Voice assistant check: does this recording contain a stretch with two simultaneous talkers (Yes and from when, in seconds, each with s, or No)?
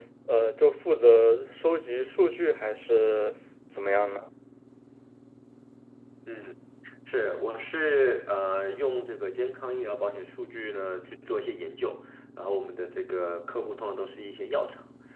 No